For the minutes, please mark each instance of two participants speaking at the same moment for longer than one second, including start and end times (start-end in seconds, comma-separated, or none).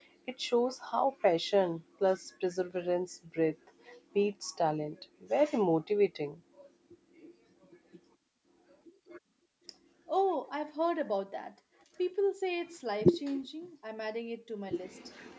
none